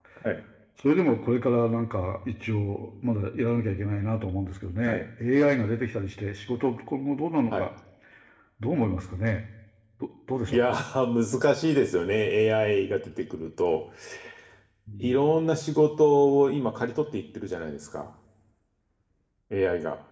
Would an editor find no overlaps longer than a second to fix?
Yes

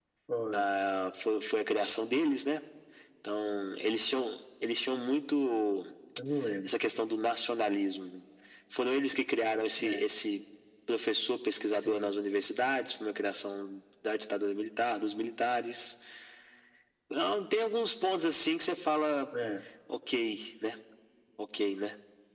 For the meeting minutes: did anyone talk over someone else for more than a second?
No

